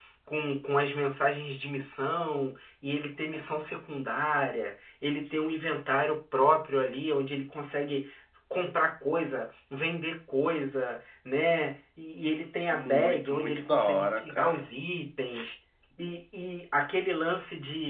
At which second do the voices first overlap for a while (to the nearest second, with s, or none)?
13 s